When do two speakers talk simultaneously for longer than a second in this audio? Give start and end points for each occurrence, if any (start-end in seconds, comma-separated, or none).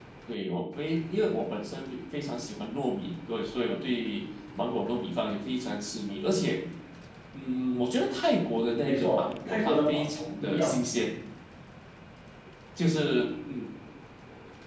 8.8-10.8